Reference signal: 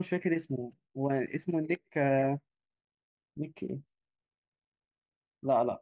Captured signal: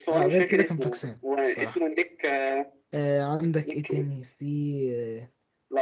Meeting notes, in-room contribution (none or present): present